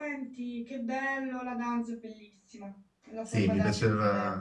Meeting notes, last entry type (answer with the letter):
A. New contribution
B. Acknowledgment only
A